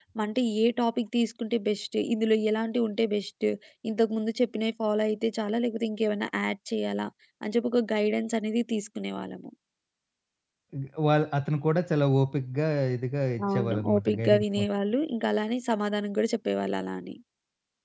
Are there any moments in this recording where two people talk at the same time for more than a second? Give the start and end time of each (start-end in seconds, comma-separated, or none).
13.4-14.7